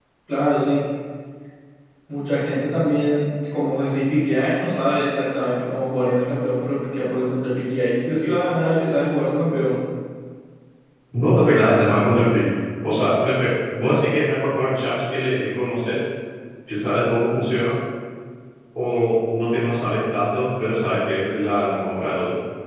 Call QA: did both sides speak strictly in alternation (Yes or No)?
Yes